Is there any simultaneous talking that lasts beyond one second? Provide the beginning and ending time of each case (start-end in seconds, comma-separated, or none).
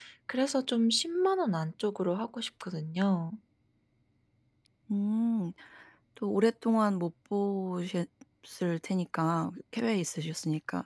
none